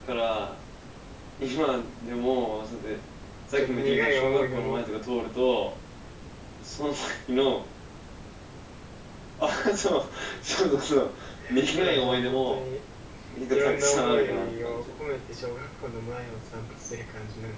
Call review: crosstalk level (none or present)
present